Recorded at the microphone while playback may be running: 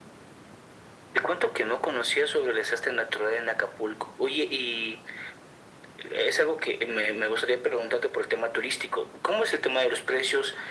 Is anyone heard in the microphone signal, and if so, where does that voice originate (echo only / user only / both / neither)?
echo only